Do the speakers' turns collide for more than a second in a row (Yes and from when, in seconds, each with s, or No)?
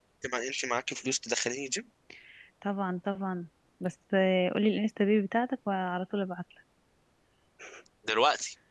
No